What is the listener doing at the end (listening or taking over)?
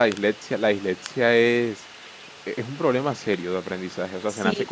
taking over